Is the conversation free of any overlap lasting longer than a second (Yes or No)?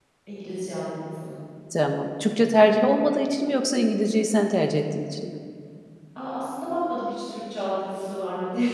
Yes